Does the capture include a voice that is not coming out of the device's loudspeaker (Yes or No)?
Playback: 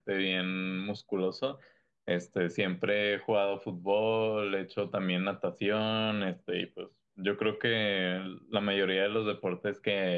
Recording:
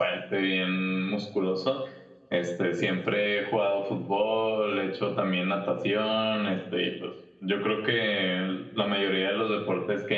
No